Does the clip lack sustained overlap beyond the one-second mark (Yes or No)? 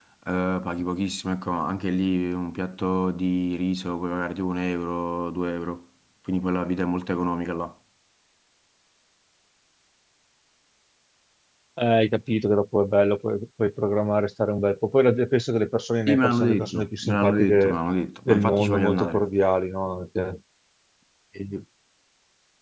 No